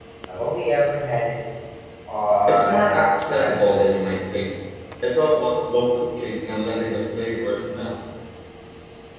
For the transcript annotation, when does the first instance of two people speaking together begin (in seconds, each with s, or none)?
2.5 s